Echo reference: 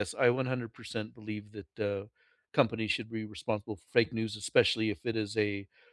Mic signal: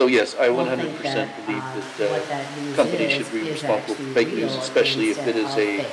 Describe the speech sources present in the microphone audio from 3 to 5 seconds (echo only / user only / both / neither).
both